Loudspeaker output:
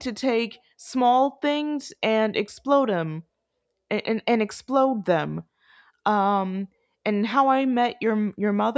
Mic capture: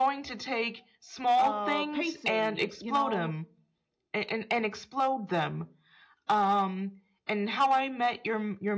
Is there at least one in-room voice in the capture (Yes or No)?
Yes